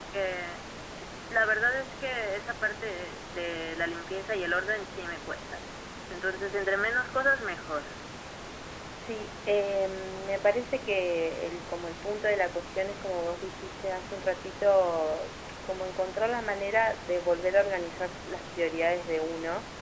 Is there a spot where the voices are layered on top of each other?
No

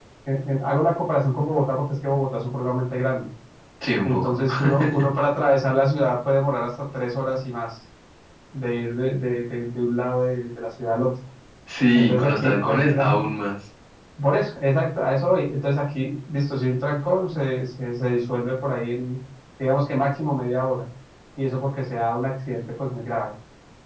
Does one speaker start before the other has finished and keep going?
Yes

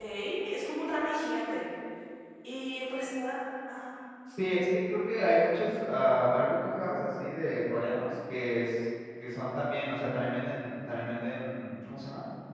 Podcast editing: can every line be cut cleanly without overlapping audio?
Yes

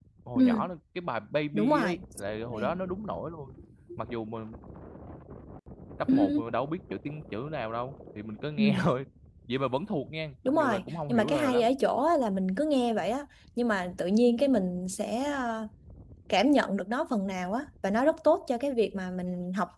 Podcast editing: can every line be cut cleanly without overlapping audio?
No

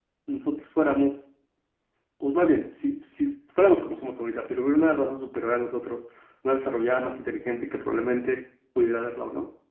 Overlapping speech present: No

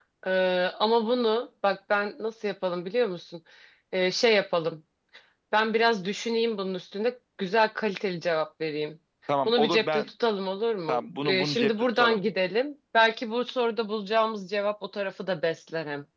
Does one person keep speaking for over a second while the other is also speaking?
Yes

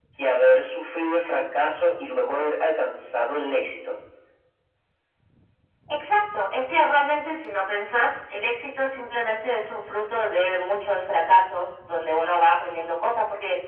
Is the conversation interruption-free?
Yes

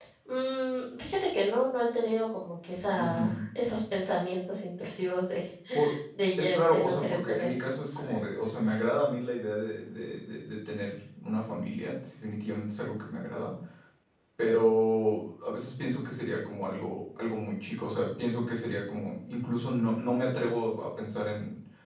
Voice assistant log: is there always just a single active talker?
No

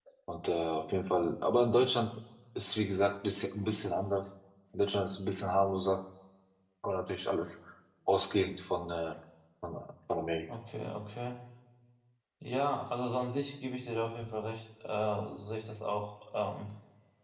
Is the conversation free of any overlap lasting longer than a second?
Yes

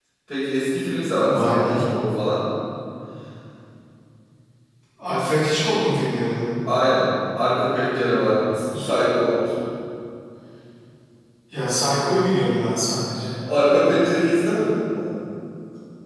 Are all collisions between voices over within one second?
Yes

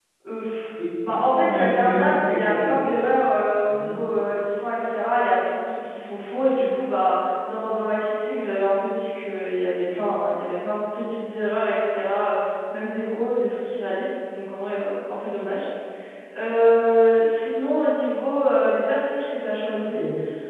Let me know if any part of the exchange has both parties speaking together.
Yes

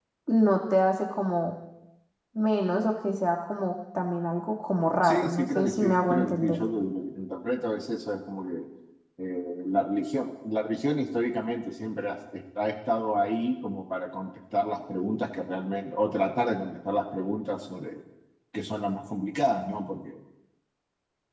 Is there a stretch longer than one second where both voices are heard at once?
Yes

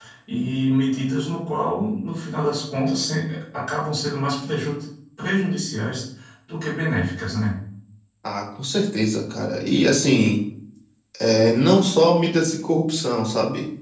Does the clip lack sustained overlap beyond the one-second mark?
Yes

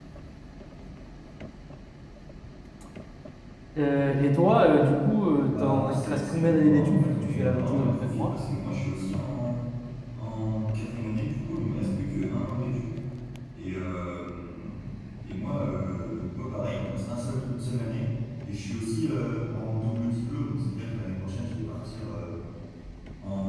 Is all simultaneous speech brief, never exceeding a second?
No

